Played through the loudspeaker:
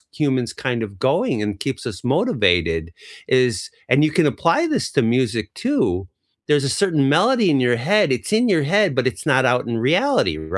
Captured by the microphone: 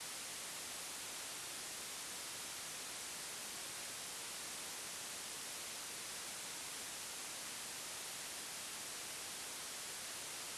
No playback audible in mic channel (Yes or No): Yes